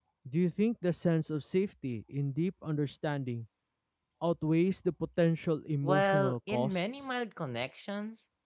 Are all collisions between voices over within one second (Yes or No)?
No